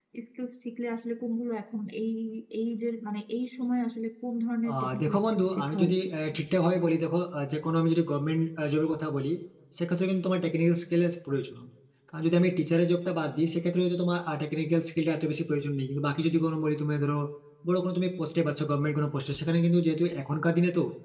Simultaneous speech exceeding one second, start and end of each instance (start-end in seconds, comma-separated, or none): 4.7-6.1